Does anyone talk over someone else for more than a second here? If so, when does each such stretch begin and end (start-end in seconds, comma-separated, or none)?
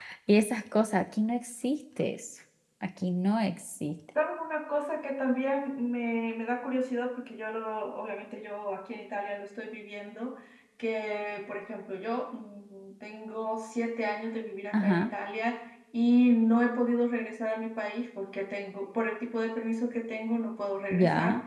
none